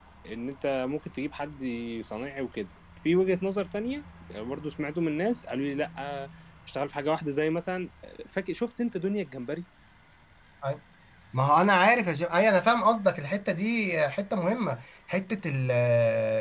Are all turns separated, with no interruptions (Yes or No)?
Yes